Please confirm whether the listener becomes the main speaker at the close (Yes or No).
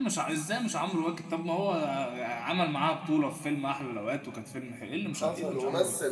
Yes